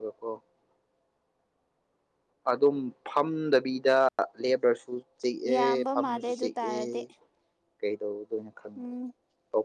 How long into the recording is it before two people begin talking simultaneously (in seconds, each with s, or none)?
5.4 s